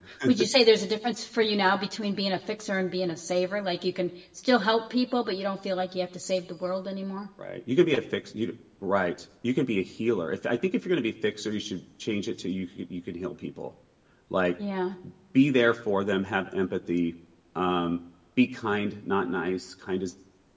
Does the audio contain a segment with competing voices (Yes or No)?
No